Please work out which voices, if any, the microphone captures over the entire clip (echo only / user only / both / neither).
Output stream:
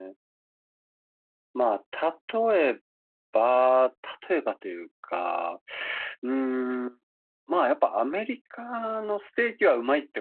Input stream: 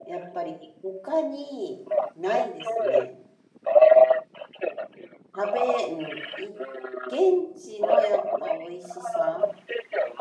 both